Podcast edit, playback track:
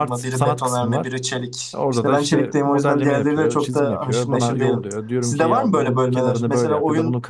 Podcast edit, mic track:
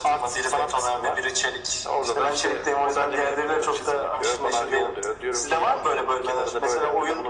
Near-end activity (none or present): none